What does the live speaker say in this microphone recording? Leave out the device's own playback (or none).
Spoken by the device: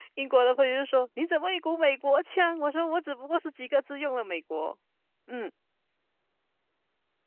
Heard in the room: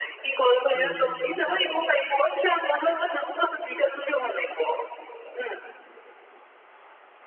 嗯，